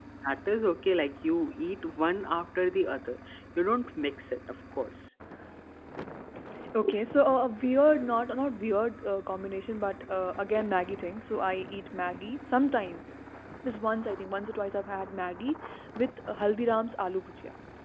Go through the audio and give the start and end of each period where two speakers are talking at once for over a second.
none

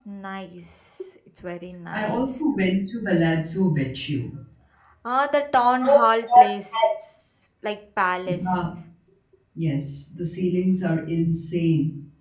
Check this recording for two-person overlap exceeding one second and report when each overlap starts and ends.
none

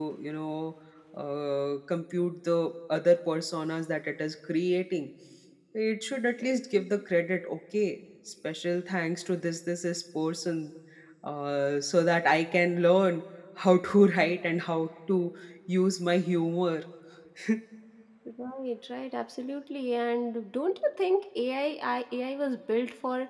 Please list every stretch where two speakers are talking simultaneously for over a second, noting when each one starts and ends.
none

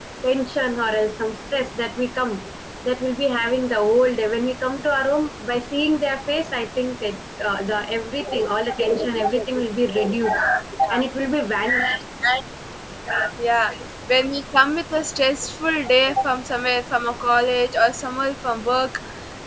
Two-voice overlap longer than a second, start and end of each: none

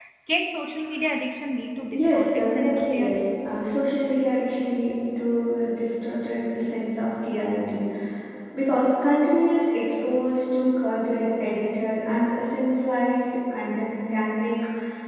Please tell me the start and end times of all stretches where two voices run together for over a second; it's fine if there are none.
1.9-3.2

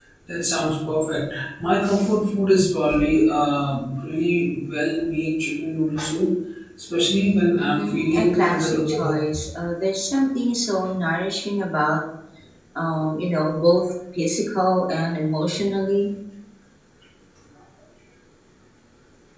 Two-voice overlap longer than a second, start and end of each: 7.6-9.1

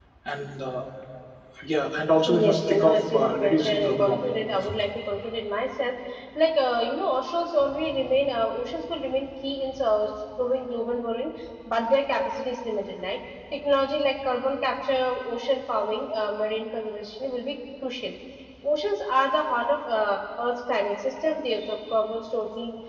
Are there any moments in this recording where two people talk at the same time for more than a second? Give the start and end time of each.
2.3-4.3

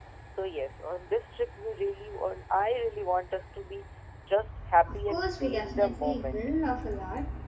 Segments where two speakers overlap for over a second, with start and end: 4.8-6.4

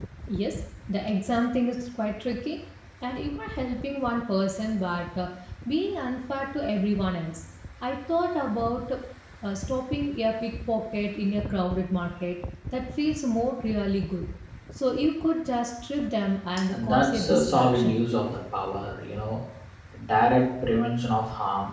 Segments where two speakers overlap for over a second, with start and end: 16.7-18.0

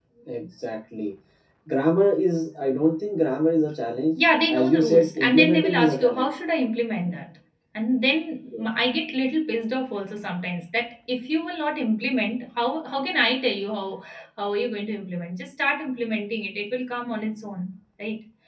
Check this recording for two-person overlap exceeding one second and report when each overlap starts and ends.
4.6-6.3

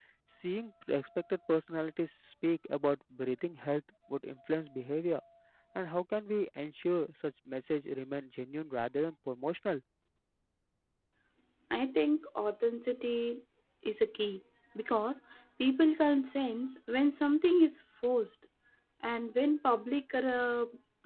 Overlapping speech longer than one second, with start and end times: none

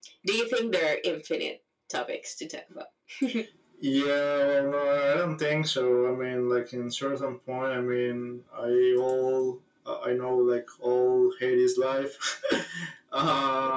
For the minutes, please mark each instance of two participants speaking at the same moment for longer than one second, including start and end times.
none

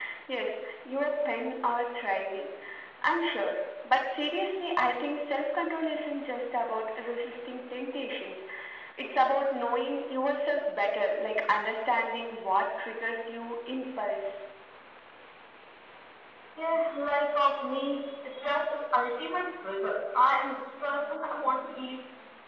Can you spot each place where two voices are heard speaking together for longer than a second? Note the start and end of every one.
none

